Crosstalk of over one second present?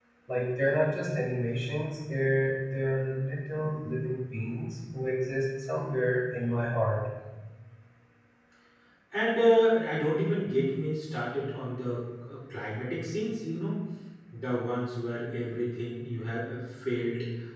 No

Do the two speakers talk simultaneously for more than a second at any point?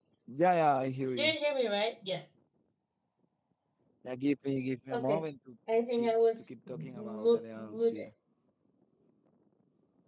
Yes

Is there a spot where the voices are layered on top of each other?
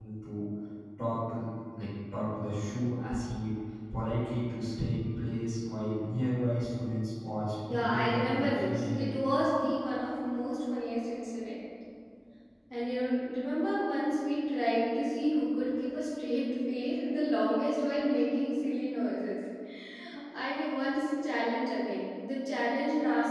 Yes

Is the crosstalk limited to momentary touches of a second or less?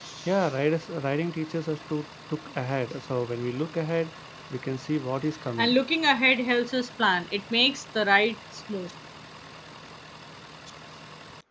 Yes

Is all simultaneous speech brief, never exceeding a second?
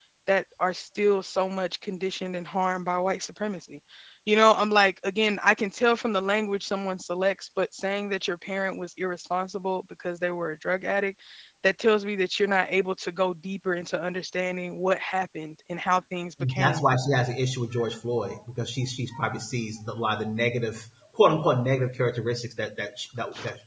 Yes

